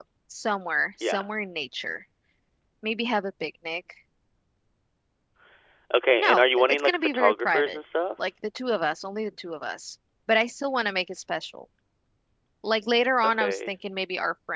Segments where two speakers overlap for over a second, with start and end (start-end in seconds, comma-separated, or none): 6.2-7.8